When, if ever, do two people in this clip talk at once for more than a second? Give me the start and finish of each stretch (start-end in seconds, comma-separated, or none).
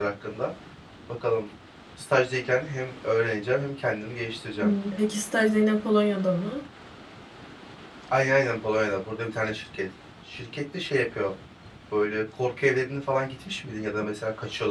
none